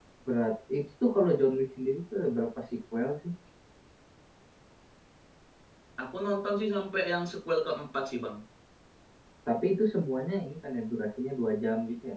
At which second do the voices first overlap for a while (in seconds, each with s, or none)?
none